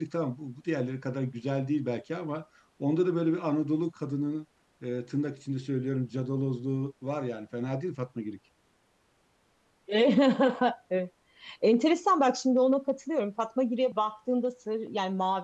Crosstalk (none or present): none